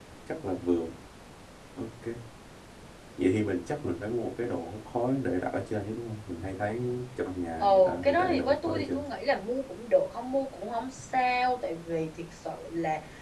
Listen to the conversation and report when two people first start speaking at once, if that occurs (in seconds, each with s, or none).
7.6 s